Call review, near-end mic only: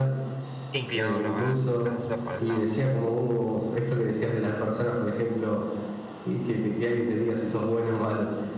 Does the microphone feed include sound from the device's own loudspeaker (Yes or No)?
Yes